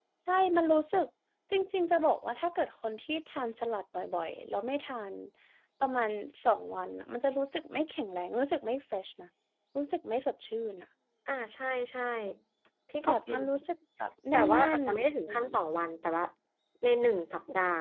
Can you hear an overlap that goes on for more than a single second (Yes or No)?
Yes